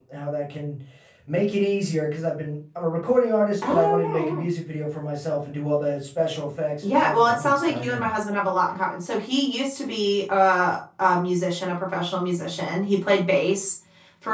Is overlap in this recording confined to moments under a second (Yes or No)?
No